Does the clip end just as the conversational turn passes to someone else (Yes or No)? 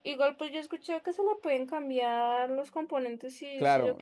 Yes